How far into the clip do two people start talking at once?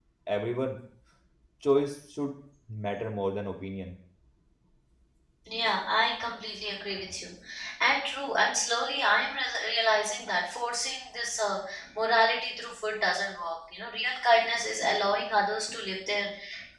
none

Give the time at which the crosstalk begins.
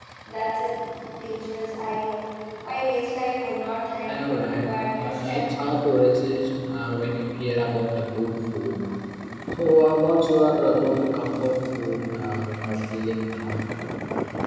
4.1 s

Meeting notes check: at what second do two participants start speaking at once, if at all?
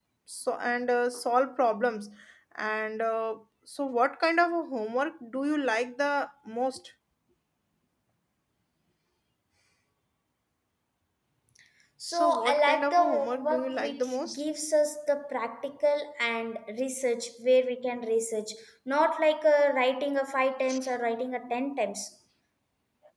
12.1 s

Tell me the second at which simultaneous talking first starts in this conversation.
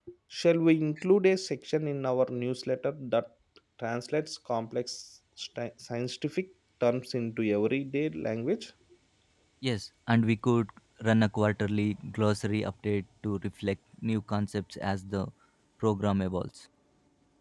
none

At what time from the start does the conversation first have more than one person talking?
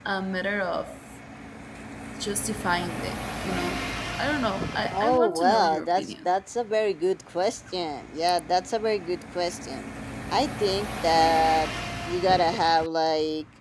4.9 s

